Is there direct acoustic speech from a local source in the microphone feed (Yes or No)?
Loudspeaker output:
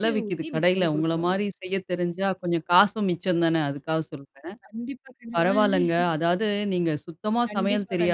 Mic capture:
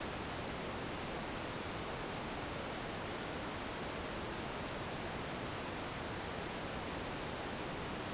No